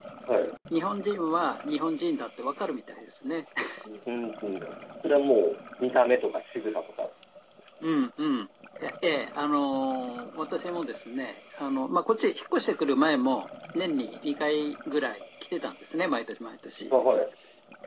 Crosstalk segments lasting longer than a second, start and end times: none

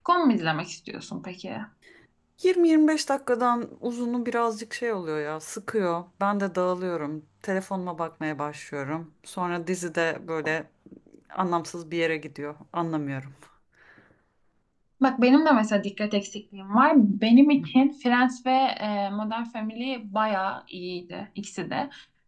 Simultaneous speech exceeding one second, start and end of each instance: none

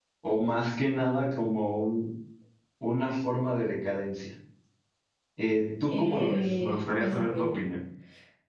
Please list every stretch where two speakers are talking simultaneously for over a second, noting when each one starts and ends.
5.9-7.6

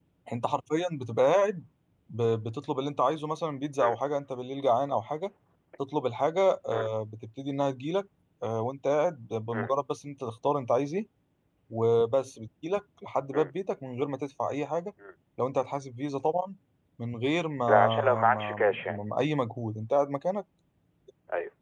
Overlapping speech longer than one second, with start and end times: 17.7-19.0

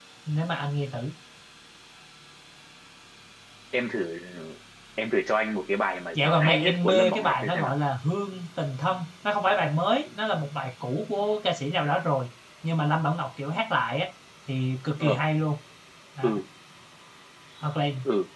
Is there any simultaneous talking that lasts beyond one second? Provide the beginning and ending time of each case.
6.2-7.7

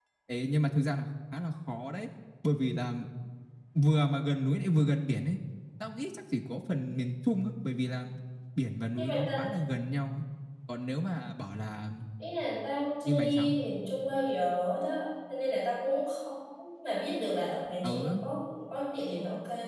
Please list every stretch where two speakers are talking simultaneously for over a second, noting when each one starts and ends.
none

